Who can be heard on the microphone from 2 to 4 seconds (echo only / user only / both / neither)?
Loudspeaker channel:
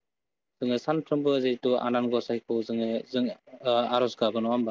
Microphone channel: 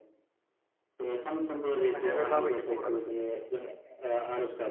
both